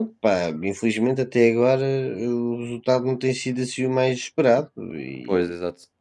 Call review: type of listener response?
taking over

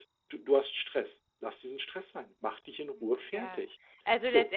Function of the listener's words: taking over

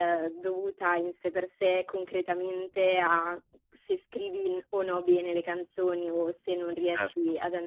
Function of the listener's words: listening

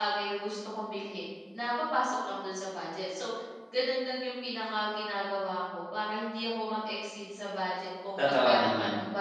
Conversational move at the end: listening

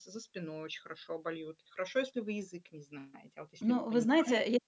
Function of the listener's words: taking over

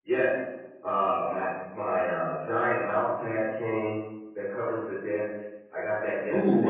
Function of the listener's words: taking over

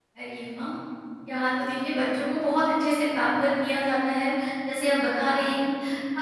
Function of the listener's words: listening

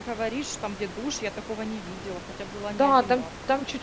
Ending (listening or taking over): taking over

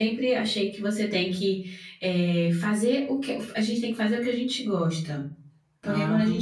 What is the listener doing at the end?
listening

